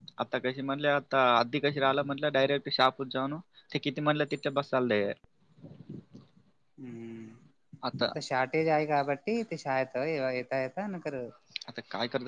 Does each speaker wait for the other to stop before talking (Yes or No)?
Yes